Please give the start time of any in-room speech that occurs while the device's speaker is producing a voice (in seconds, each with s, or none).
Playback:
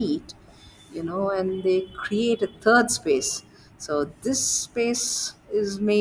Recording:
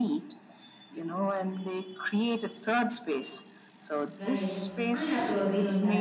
4.1 s